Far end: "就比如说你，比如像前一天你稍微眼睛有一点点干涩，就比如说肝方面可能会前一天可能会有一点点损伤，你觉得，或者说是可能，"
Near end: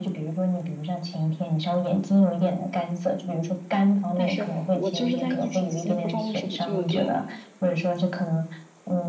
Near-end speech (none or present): present